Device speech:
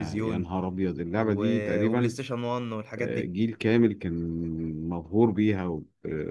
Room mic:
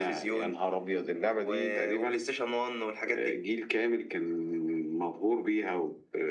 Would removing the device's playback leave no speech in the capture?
Yes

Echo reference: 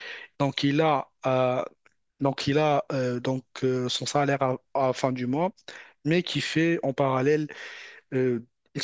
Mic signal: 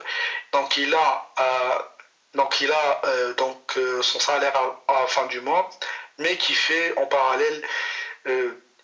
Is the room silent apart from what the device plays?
Yes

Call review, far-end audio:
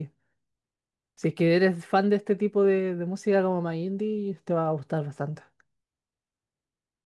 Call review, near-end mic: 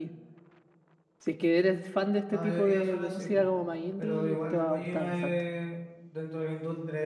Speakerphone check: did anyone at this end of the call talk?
Yes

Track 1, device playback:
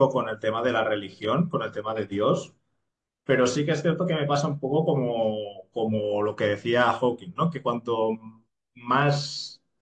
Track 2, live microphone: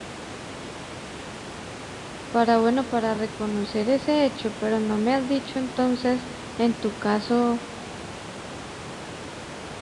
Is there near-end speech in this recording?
Yes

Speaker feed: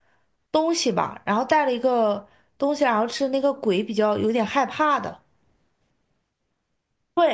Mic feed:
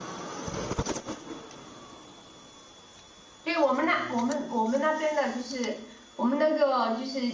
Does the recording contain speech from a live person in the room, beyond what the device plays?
Yes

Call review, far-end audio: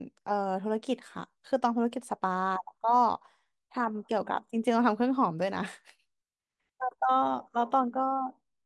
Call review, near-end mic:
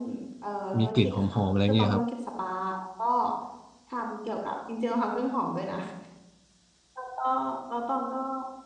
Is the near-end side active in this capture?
Yes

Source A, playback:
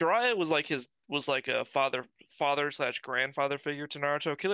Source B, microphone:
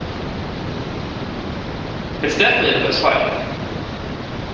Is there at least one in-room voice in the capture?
Yes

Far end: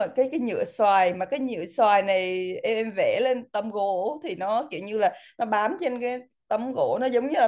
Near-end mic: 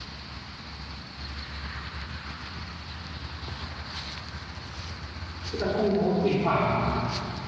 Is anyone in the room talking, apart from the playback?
Yes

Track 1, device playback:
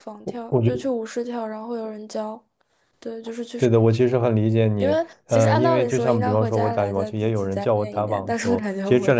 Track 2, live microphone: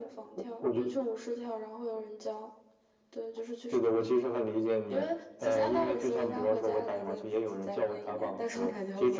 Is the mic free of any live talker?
Yes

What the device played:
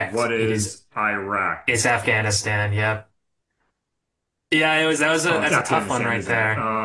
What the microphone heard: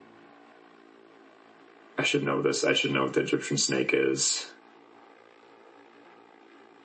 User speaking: Yes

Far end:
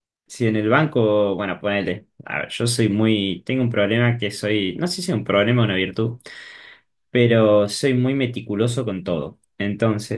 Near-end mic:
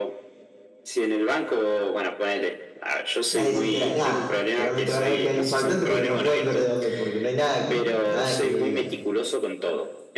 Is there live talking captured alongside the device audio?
Yes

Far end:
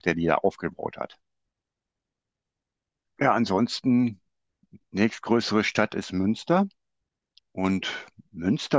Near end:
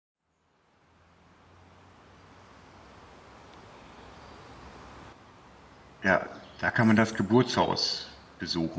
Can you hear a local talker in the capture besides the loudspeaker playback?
Yes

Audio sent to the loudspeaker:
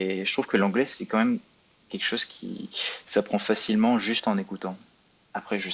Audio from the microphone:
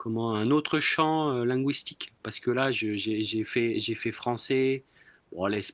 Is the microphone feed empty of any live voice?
No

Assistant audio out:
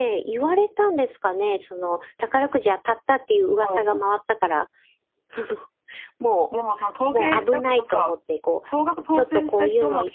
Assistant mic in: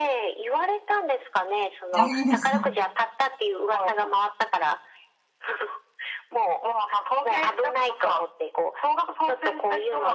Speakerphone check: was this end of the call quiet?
No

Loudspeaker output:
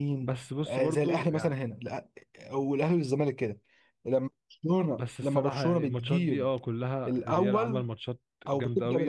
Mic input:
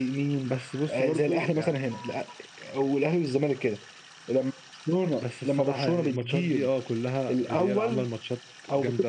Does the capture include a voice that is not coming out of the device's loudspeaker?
No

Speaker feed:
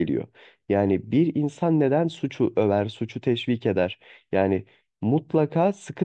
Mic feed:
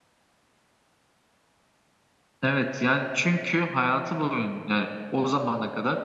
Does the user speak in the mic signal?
Yes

